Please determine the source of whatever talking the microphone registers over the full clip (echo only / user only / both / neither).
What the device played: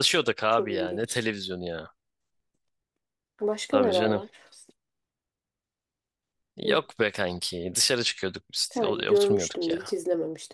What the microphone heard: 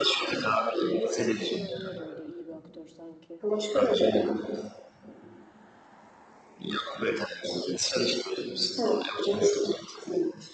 both